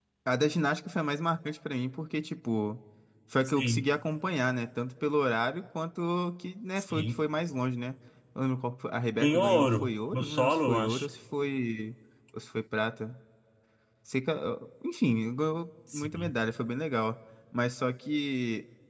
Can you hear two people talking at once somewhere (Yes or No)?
Yes